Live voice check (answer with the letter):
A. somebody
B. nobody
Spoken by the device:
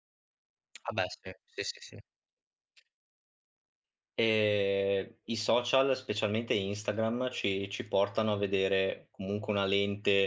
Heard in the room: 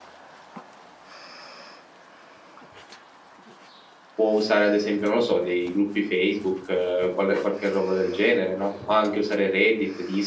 A